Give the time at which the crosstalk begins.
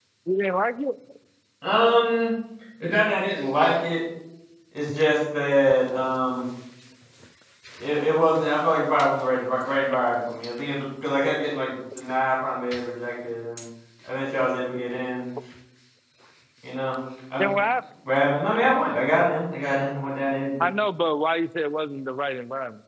none

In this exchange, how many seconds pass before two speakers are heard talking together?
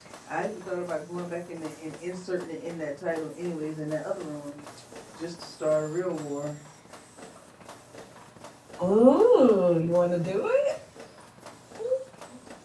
none

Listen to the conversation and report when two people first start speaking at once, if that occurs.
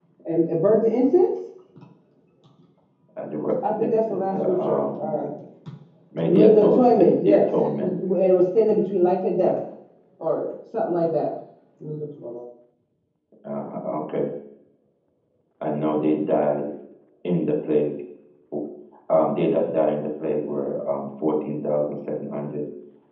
3.7 s

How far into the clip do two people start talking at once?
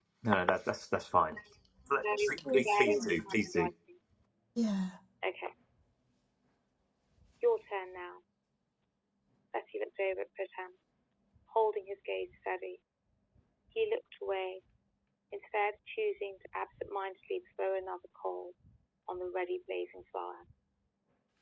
2.0 s

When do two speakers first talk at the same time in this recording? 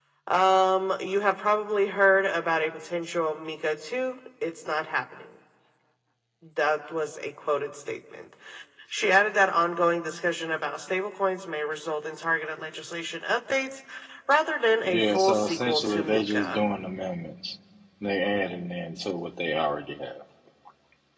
14.8 s

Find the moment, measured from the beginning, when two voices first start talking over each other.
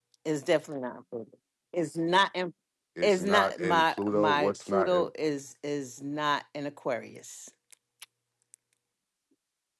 3.0 s

